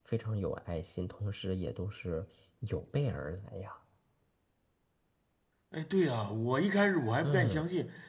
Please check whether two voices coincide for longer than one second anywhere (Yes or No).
No